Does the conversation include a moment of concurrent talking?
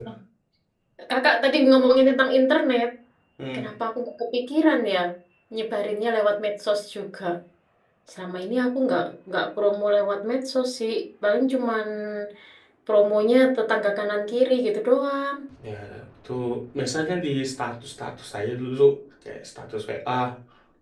No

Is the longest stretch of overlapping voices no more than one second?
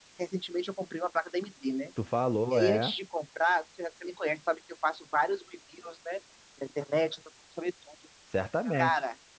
Yes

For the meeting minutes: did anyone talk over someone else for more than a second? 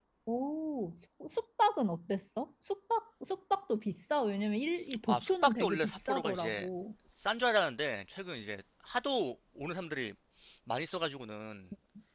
Yes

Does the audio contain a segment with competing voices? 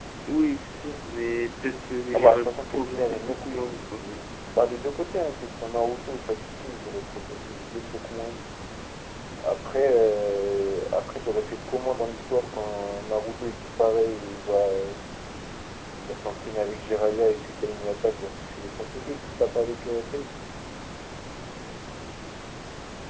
Yes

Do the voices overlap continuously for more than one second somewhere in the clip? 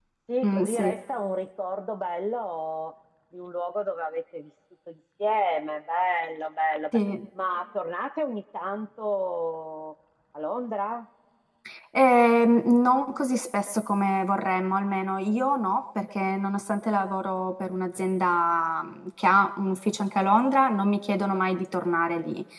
No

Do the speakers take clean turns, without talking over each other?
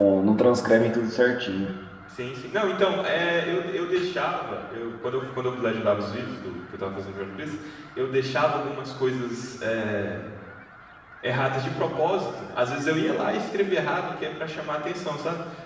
Yes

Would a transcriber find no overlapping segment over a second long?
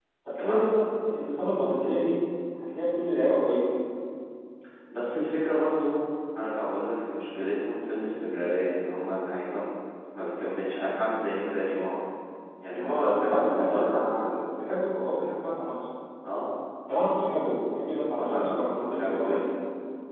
No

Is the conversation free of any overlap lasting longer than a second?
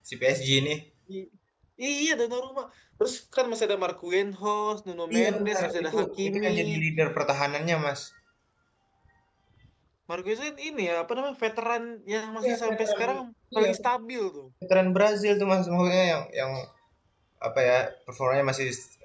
No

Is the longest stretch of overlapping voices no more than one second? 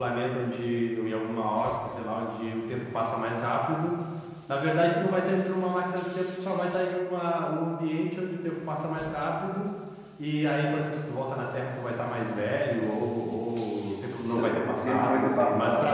No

